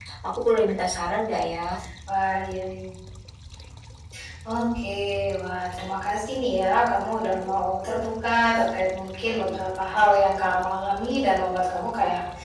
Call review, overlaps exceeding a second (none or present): none